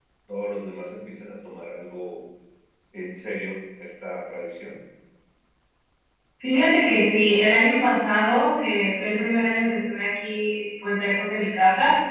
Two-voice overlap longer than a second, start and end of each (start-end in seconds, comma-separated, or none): none